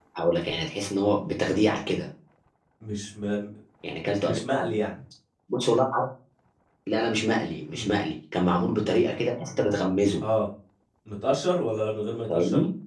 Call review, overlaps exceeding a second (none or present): none